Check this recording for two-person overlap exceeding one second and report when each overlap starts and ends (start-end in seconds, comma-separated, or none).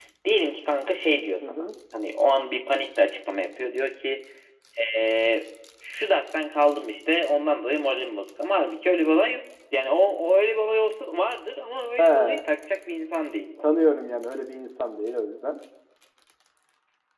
none